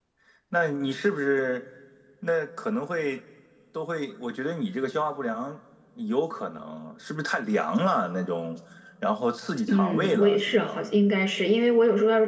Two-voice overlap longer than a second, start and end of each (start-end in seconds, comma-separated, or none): 9.7-10.9